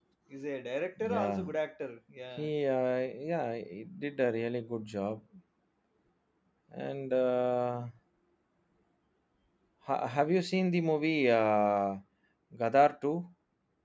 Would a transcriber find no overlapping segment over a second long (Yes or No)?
Yes